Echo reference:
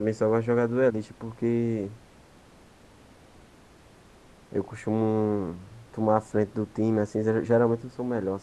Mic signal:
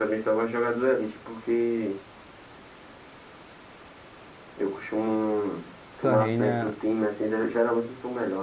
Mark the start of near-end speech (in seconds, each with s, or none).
5.9 s